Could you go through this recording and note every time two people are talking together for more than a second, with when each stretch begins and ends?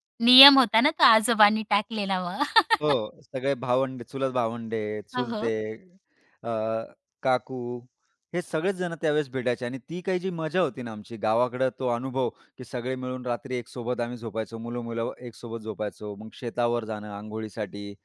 none

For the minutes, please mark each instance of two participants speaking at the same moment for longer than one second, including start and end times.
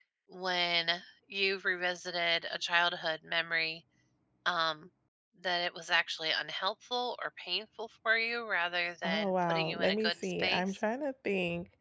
9.0-10.6

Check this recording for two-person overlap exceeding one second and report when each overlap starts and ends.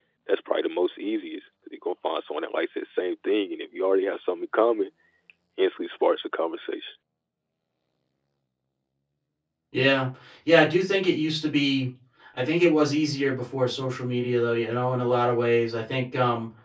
none

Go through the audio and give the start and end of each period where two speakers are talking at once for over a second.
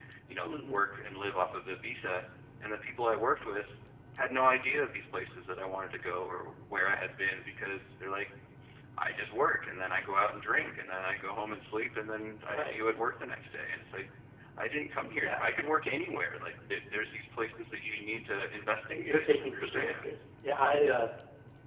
18.9-20.1

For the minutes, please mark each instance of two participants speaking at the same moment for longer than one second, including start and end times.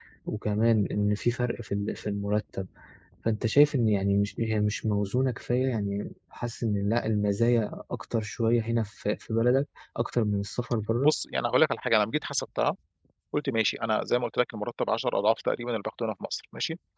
none

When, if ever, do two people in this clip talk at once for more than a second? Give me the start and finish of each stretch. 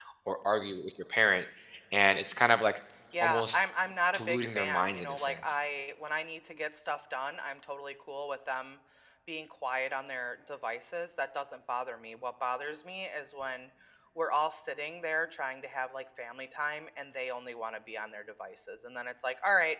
4.1-5.6

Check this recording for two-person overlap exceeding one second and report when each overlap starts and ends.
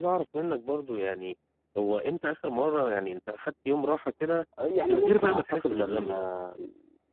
4.9-6.2

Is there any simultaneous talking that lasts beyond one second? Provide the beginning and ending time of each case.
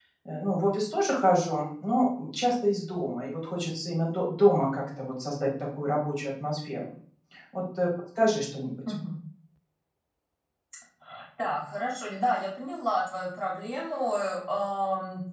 none

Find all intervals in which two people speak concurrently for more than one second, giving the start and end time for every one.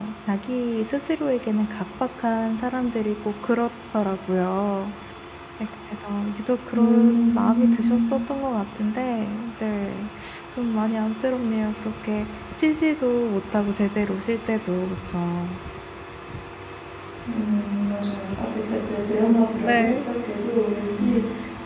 6.7-8.2

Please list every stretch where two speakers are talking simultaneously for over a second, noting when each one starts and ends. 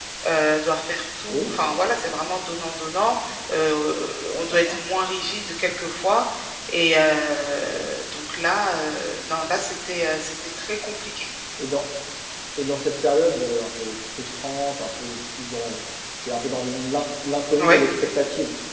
none

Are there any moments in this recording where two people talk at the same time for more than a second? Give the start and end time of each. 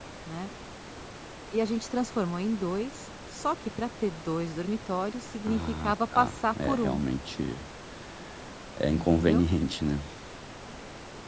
5.5-7.0

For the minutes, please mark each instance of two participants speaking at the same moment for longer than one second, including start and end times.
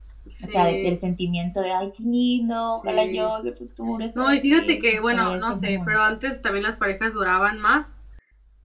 4.2-6.0

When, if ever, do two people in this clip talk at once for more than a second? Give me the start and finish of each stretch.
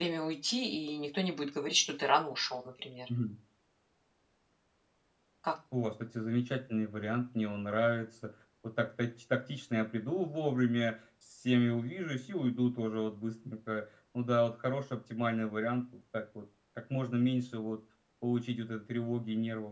none

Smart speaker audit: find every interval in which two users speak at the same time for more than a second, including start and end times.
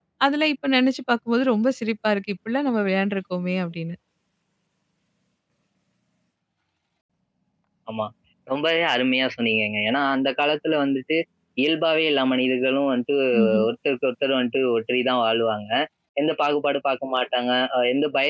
none

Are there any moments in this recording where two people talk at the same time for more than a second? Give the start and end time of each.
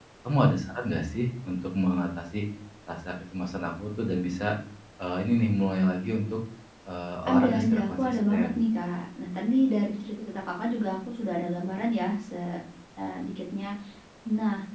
7.3-8.6

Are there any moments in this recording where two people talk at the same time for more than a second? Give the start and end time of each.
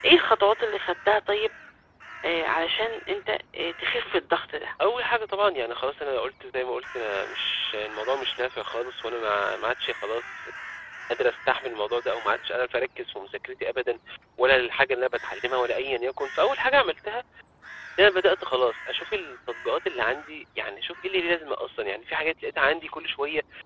none

